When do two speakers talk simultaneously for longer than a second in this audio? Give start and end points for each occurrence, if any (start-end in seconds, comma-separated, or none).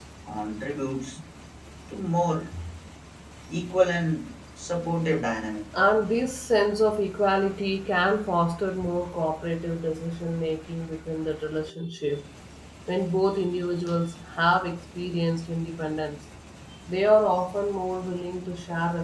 none